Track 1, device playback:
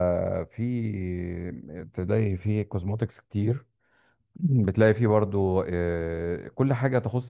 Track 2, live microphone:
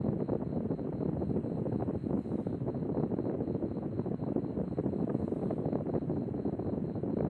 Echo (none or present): none